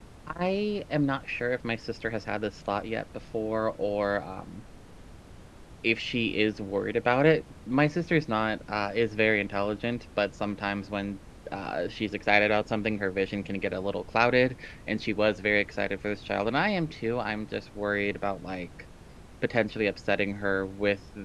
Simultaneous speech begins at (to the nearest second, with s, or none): none